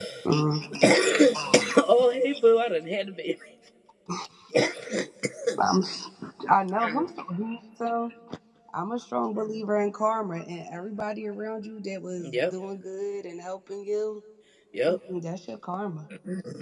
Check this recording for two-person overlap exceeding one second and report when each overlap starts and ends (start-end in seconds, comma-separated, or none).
none